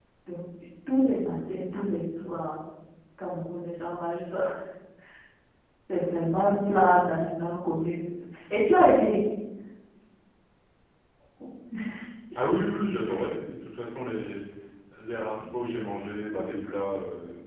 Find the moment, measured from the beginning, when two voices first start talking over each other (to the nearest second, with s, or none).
none